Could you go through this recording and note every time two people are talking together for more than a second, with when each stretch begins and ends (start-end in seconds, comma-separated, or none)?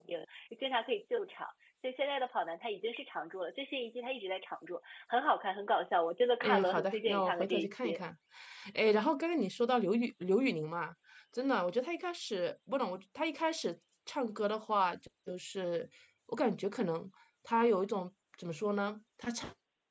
6.4-8.0